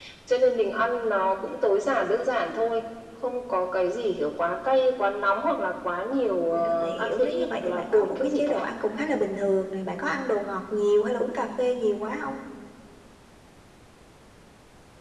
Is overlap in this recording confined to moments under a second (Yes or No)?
No